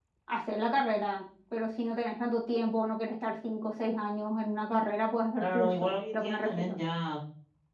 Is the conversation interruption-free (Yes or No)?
No